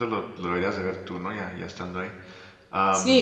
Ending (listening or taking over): taking over